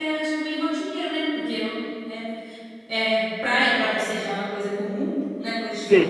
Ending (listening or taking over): taking over